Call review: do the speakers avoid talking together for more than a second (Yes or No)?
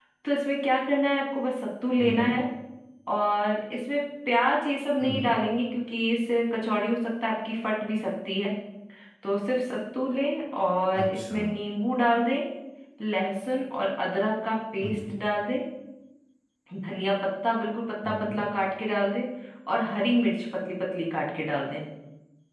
Yes